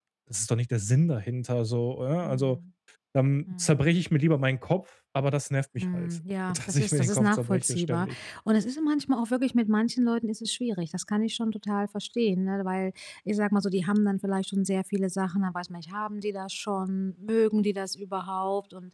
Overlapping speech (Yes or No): Yes